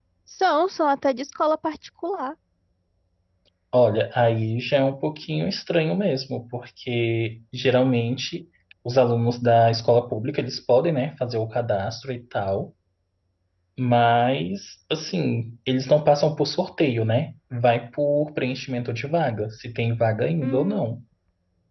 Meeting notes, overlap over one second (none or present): none